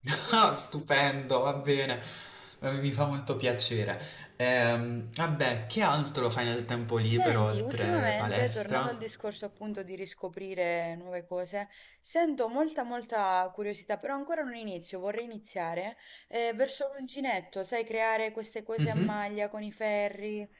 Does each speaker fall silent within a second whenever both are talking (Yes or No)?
No